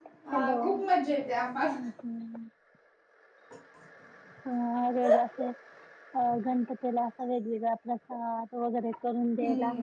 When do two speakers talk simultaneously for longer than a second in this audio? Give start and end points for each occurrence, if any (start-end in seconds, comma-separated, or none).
none